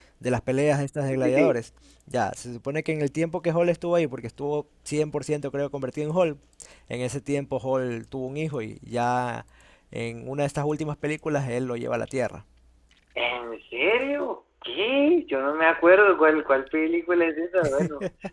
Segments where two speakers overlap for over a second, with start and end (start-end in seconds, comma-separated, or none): none